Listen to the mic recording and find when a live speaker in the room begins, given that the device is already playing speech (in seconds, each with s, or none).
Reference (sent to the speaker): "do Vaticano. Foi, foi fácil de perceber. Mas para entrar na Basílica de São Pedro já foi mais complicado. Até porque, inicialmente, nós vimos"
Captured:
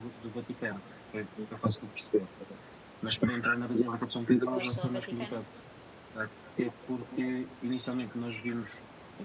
4.5 s